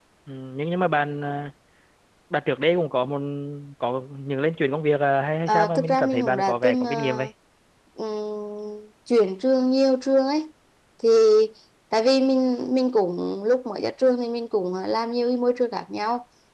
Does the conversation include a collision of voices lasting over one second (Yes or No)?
Yes